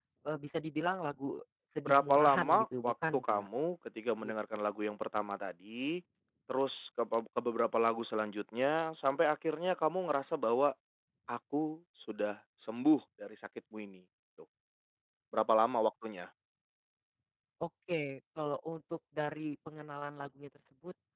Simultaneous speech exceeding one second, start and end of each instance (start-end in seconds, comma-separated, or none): 1.9-3.5